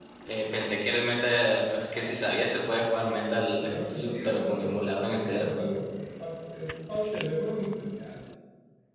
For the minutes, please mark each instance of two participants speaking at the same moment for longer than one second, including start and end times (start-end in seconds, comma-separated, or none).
3.6-5.6